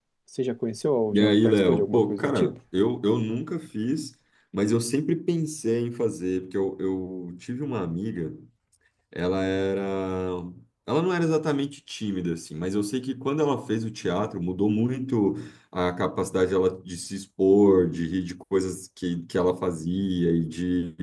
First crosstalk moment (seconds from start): 1.1 s

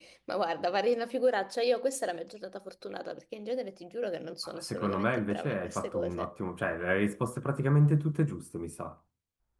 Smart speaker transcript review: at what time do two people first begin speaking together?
4.6 s

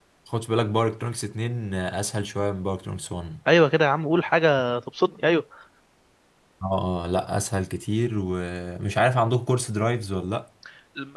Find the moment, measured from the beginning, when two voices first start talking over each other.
none

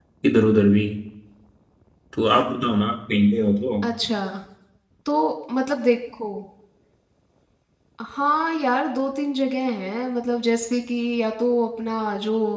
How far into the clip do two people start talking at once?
none

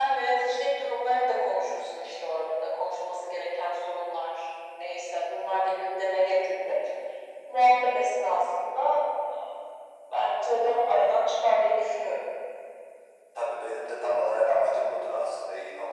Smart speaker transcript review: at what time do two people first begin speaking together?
none

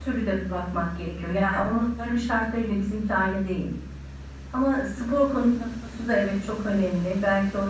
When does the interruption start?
none

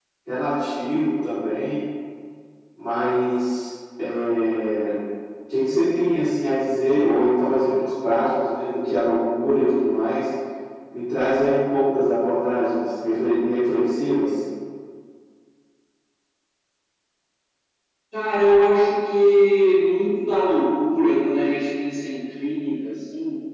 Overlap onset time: none

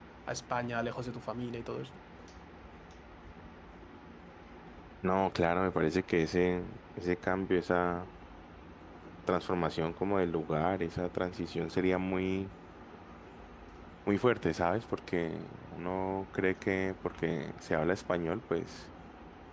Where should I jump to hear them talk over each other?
none

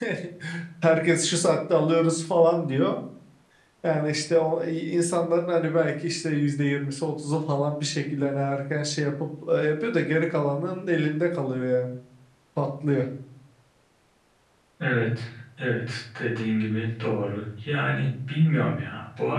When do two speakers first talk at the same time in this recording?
none

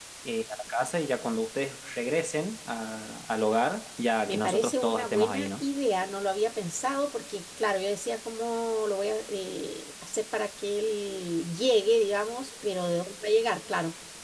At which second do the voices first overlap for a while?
4.2 s

